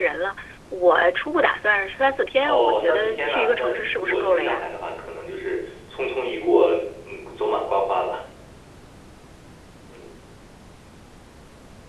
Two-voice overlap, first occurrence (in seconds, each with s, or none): 2.4 s